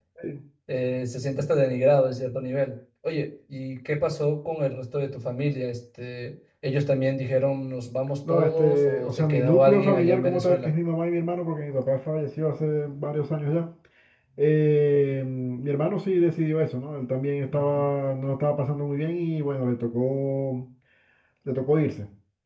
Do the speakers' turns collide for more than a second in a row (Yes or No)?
Yes